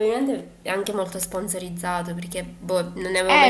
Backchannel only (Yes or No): No